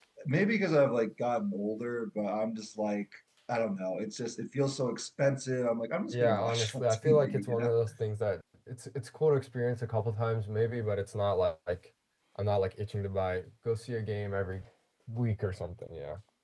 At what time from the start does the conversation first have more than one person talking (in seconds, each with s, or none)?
6.1 s